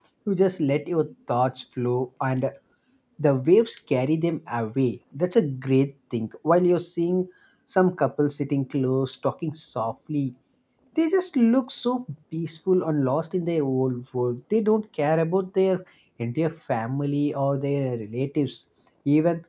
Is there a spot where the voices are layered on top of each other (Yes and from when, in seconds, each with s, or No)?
No